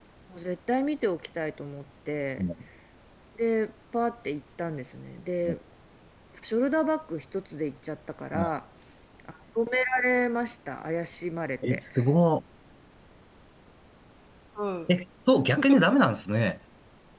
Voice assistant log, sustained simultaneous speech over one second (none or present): none